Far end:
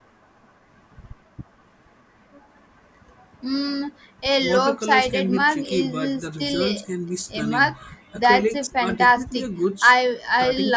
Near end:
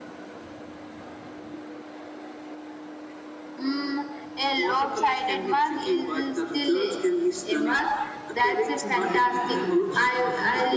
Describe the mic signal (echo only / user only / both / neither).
both